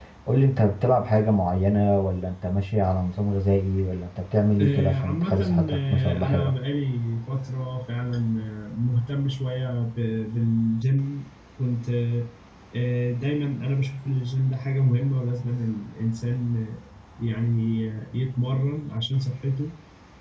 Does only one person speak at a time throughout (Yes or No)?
No